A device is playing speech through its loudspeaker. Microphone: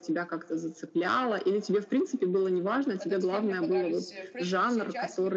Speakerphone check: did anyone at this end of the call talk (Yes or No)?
Yes